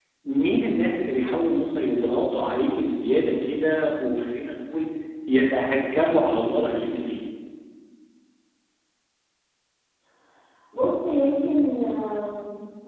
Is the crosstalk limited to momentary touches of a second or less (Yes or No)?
Yes